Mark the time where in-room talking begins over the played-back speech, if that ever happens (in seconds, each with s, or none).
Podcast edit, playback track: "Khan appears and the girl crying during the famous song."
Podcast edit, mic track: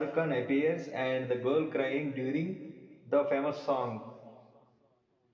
none